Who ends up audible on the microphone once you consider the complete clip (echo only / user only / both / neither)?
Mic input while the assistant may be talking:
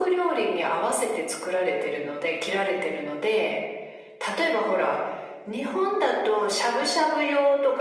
echo only